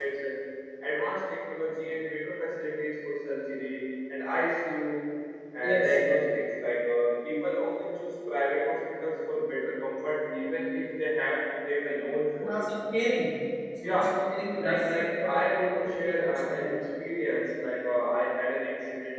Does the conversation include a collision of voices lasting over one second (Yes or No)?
Yes